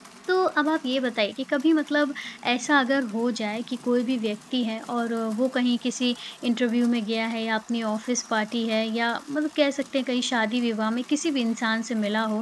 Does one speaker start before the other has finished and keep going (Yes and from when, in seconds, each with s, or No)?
No